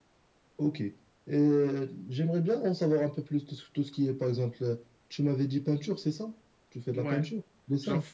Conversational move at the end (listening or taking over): taking over